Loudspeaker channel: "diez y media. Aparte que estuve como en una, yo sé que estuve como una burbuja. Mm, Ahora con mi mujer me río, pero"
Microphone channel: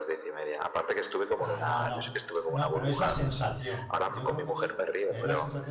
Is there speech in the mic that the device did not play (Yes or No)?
Yes